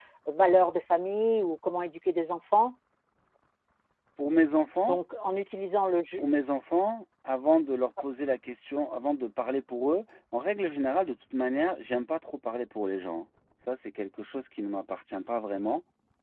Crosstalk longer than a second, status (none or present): none